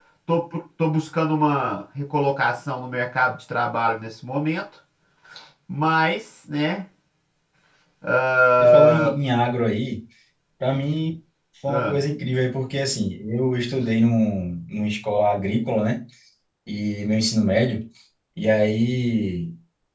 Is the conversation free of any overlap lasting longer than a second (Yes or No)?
Yes